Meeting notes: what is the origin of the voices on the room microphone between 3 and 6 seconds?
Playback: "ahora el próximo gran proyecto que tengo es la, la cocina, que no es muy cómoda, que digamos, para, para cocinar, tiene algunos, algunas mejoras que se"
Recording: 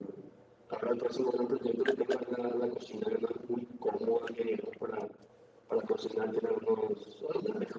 echo only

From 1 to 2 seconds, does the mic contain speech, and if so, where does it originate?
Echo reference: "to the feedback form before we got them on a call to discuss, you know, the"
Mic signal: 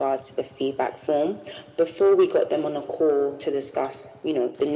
echo only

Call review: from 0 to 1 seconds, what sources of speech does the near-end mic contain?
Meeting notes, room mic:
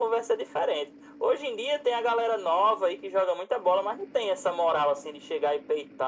echo only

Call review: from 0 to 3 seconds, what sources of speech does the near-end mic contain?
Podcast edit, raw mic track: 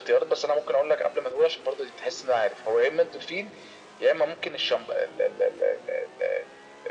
echo only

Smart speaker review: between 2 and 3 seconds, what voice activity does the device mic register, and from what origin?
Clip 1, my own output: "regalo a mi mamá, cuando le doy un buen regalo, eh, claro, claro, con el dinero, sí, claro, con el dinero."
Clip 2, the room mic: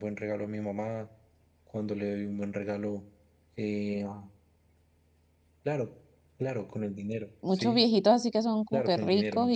echo only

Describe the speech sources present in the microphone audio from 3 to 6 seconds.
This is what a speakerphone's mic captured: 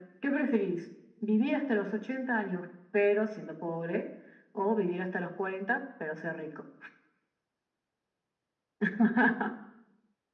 echo only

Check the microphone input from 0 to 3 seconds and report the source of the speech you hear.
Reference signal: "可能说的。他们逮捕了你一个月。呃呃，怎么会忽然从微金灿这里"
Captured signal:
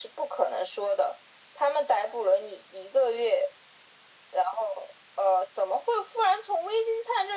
echo only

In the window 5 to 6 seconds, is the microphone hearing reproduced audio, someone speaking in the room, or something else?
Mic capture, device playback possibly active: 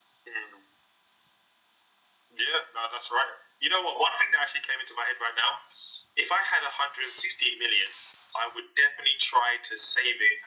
echo only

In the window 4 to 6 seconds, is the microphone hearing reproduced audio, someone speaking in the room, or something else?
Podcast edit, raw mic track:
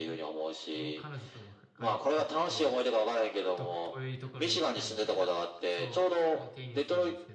both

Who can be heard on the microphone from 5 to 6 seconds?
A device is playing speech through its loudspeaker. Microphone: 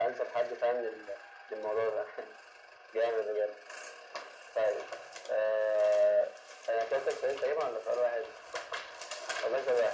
echo only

